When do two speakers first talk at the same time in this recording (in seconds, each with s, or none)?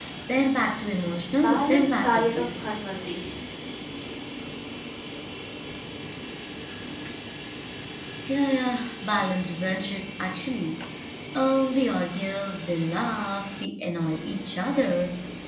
1.3 s